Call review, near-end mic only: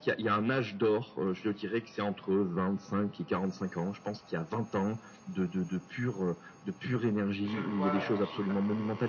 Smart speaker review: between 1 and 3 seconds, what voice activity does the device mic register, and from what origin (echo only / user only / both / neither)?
echo only